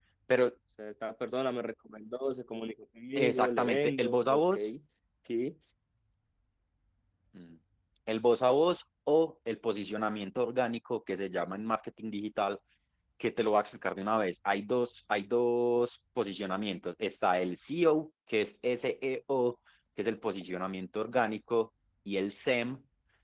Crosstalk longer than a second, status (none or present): present